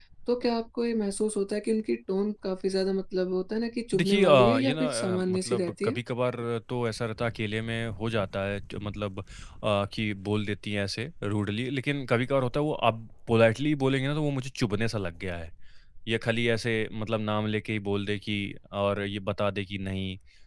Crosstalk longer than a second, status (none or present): present